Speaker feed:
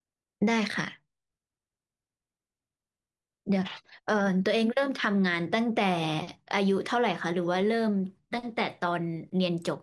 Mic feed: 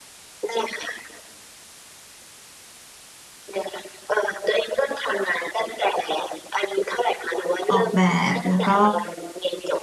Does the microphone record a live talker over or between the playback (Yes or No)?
Yes